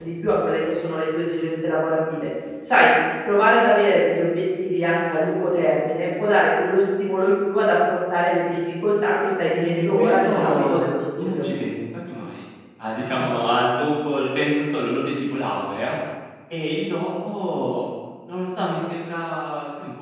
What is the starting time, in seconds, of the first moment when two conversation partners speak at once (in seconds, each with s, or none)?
9.6 s